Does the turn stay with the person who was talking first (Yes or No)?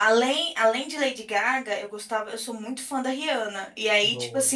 Yes